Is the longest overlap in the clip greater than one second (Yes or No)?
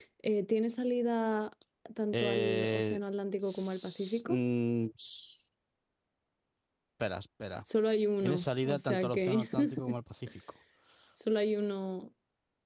Yes